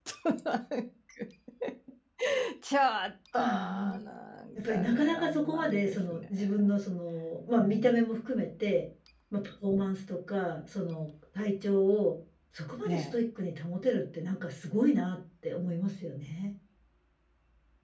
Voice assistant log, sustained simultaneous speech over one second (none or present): present